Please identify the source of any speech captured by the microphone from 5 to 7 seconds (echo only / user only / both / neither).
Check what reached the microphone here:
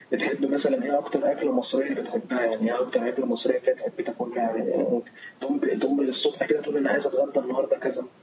echo only